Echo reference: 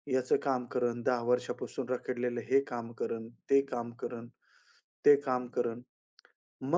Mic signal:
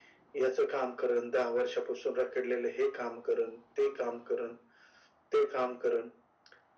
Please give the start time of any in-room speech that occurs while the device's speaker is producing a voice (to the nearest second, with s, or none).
none